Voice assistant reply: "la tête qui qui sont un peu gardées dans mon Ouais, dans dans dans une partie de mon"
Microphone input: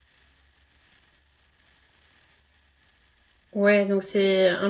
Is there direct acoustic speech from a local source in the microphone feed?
Yes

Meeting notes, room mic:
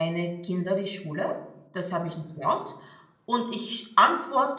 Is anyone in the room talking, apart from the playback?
Yes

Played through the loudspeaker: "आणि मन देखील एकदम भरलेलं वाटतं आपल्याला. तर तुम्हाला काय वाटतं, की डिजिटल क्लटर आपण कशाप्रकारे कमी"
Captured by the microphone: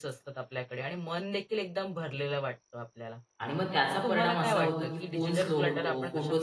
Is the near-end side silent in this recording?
No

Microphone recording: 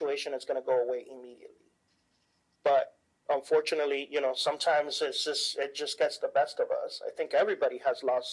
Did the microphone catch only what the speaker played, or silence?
Yes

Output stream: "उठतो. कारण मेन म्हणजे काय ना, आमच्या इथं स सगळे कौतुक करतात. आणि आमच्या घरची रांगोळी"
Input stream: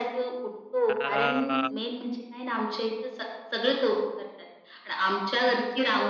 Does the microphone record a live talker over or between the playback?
Yes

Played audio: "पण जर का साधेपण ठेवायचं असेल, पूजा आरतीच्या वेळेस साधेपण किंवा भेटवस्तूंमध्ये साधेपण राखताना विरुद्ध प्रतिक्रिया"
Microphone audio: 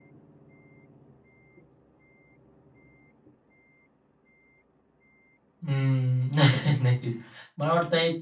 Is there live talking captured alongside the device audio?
Yes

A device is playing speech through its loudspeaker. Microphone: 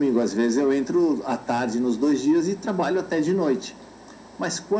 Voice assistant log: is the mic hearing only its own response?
Yes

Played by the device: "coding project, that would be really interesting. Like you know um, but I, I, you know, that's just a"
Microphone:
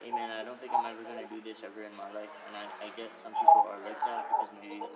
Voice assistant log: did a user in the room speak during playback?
Yes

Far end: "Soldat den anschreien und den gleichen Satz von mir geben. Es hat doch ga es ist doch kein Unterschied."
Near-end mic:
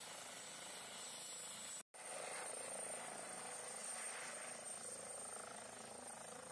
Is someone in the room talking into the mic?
No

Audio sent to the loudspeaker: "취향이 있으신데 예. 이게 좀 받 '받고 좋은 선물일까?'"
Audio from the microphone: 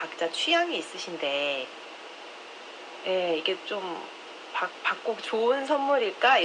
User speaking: No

